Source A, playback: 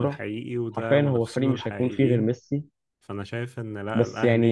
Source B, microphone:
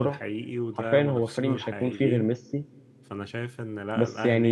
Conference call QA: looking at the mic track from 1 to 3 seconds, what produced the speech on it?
echo only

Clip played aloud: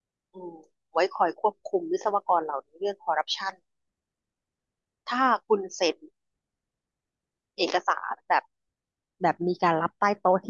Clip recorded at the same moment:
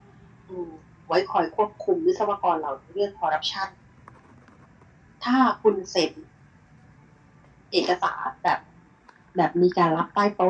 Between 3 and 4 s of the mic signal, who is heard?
echo only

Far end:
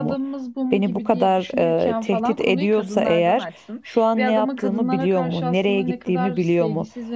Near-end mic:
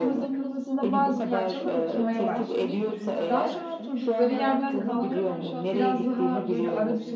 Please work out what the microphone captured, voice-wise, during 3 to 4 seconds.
both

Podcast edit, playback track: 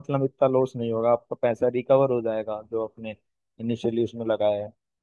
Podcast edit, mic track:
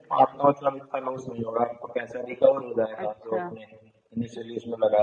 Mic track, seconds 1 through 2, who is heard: echo only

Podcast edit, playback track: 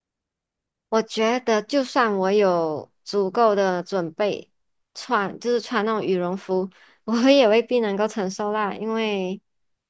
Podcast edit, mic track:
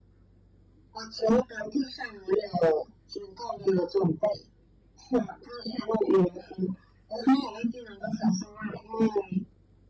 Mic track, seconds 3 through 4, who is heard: echo only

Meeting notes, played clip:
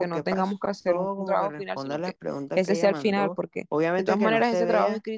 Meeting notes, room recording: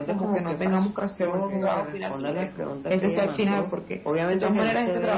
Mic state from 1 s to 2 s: both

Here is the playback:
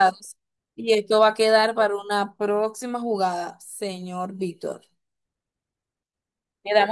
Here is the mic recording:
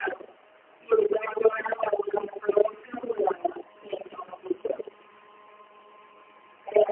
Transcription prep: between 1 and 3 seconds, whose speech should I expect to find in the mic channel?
echo only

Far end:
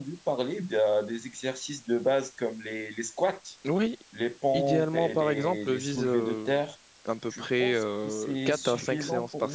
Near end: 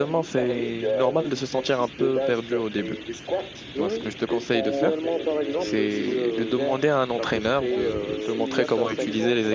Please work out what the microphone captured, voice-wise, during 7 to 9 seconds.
both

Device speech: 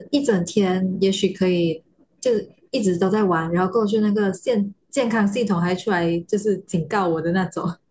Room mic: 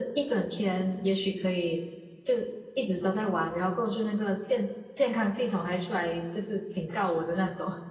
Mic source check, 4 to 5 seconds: echo only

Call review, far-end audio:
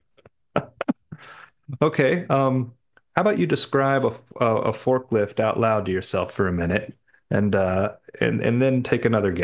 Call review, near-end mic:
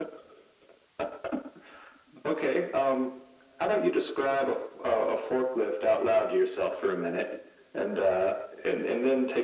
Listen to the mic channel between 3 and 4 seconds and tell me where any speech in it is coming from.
echo only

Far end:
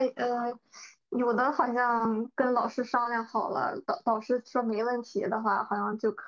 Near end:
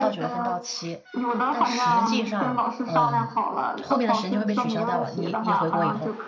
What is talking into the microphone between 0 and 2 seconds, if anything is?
both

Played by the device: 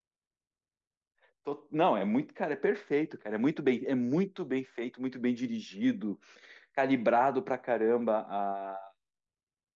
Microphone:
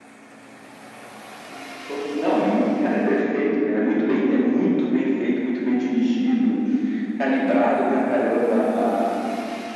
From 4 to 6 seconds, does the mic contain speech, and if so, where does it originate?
echo only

